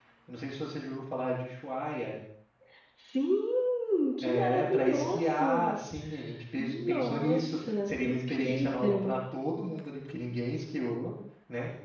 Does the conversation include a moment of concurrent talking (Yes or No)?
Yes